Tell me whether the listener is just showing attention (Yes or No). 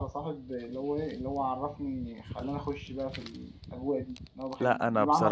No